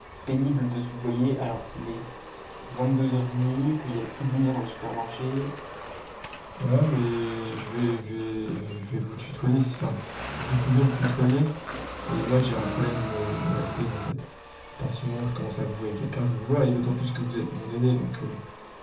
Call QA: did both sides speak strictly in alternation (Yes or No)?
Yes